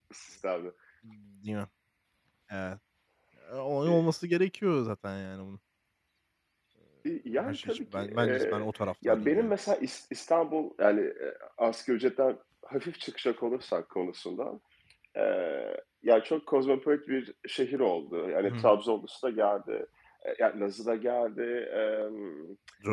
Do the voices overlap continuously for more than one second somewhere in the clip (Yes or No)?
Yes